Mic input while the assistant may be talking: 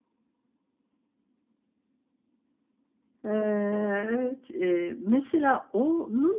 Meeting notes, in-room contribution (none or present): present